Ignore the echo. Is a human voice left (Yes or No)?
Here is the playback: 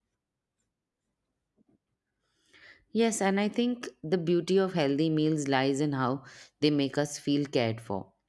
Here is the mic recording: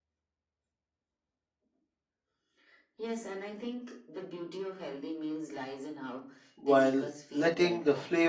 Yes